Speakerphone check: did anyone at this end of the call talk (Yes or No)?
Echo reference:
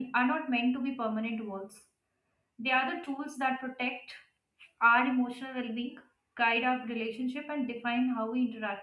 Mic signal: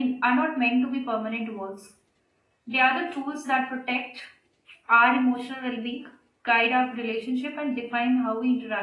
No